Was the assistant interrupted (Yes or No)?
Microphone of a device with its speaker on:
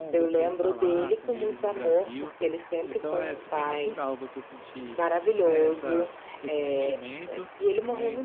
Yes